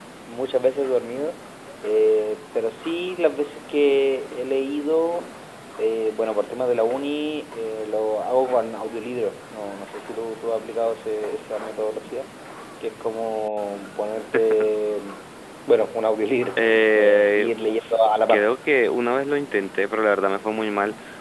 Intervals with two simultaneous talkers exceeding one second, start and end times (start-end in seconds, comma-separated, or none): 16.6-18.5